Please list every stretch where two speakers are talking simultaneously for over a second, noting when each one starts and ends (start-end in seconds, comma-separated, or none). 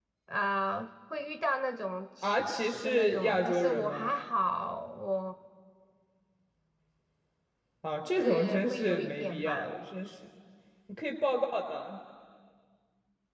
2.2-4.1, 8.2-9.7